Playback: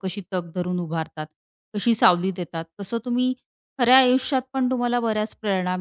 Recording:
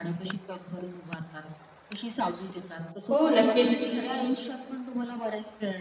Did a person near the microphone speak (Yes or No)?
Yes